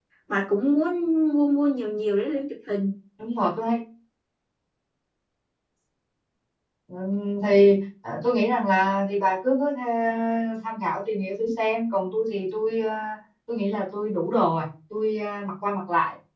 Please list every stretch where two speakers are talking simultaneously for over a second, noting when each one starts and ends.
none

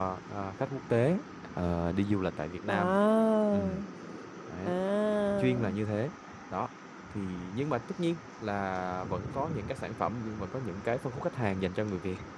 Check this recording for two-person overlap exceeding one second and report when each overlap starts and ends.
none

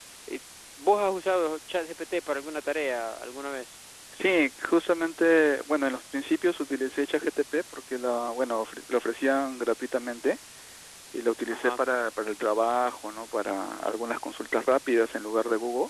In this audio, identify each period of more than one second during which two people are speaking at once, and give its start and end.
none

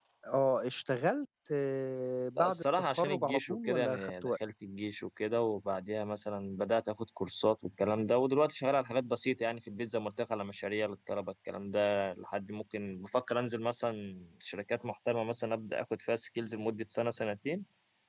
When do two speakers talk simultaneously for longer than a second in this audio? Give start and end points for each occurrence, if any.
2.4-4.3

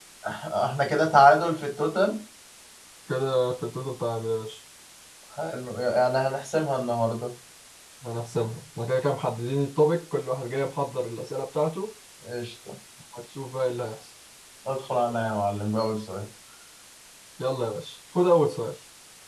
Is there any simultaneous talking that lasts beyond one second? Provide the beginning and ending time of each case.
none

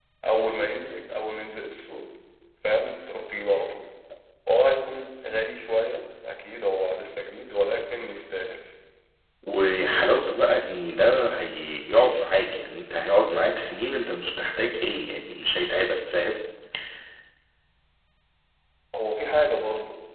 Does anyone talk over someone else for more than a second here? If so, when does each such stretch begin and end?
none

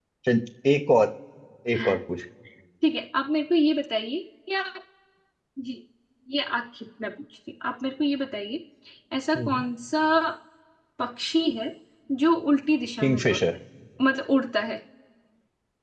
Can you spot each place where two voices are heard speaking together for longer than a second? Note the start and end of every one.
none

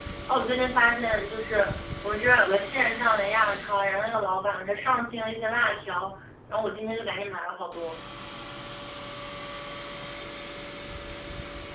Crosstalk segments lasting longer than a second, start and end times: none

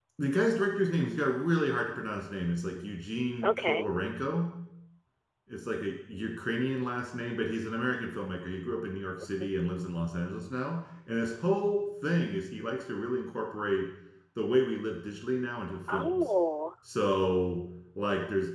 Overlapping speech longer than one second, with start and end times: none

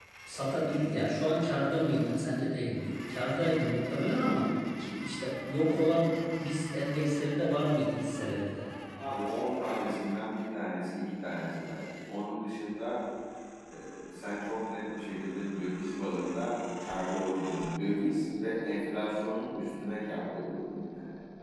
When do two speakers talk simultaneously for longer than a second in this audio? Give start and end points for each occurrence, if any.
none

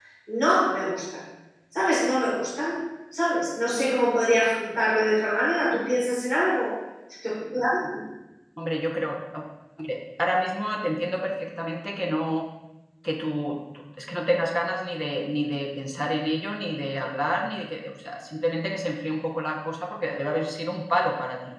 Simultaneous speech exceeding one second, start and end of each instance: none

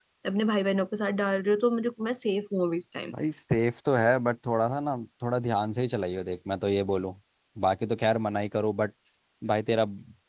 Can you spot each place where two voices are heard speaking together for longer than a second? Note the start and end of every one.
none

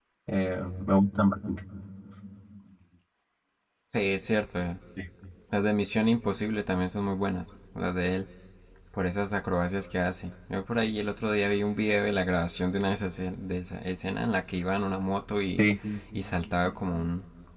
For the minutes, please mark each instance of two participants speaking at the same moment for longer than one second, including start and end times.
none

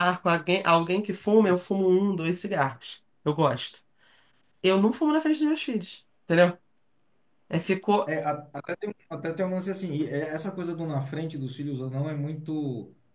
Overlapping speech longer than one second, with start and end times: none

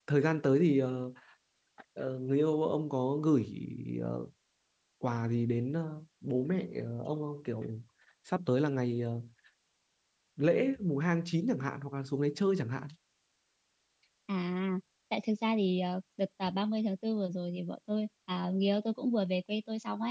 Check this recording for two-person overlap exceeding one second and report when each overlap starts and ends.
none

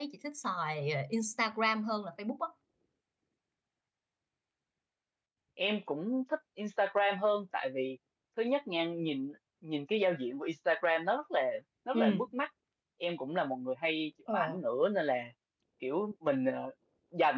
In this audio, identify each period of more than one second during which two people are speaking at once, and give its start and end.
none

